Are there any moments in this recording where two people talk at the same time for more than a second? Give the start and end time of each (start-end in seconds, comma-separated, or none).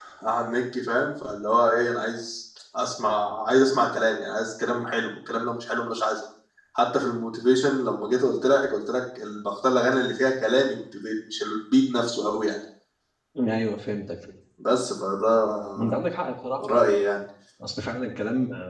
none